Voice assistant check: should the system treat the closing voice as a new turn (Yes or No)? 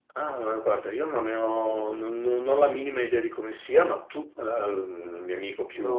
Yes